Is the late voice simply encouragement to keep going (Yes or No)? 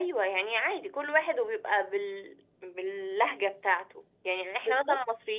Yes